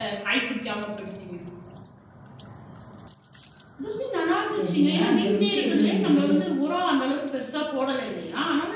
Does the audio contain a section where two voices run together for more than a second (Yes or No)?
Yes